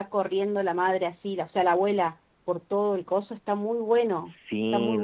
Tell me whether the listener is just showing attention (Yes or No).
No